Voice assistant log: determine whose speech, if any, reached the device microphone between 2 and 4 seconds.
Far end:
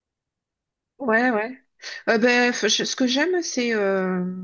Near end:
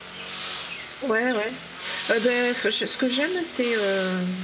echo only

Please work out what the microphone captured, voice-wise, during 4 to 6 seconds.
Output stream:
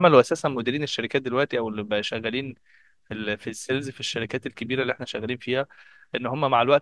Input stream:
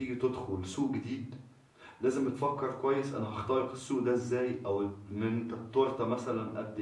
user only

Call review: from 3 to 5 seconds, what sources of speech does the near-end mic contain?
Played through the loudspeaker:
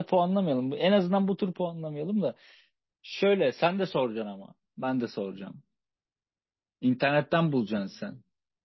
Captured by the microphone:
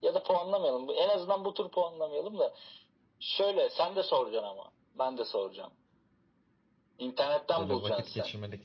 echo only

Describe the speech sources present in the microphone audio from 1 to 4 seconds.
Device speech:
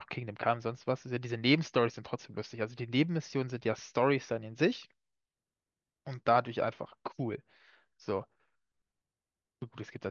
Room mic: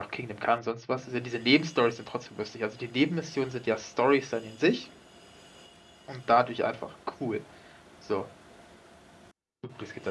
echo only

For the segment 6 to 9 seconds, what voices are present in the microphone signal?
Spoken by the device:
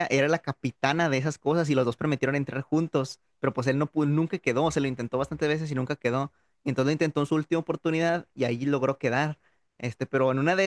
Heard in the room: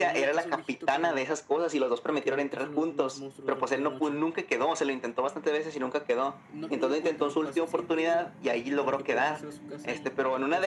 both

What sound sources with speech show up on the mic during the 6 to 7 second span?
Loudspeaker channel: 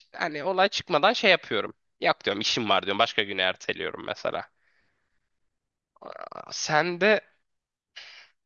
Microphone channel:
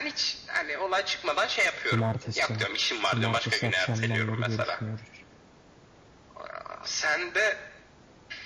echo only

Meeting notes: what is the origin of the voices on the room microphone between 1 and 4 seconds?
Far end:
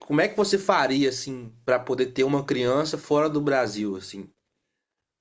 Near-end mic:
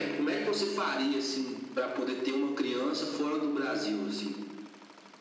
echo only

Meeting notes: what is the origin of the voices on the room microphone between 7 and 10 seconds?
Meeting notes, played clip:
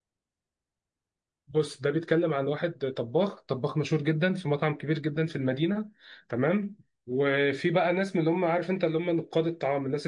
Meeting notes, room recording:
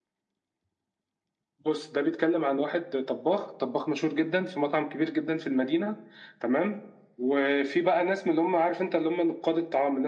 echo only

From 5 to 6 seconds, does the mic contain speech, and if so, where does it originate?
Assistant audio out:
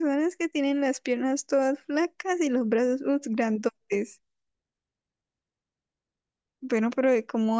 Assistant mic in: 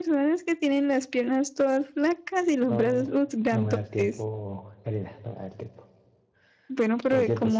user only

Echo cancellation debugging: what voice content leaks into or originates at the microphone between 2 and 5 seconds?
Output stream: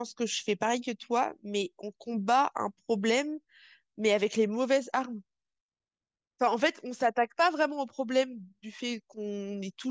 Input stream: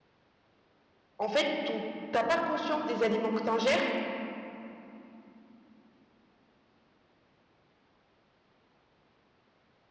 user only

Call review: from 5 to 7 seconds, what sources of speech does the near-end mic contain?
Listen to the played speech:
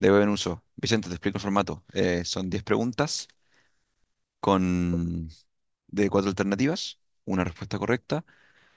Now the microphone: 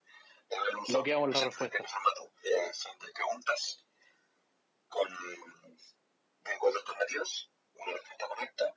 echo only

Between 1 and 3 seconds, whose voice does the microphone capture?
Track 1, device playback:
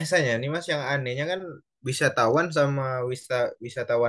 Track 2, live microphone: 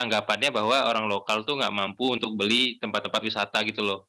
user only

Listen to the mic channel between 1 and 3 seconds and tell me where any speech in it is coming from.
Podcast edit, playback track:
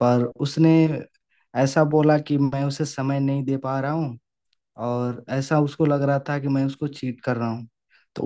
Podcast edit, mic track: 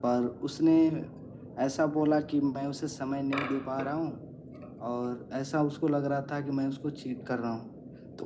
echo only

